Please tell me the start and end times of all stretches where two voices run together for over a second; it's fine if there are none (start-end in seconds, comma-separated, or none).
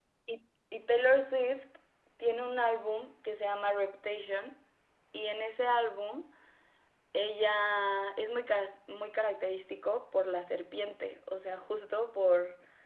none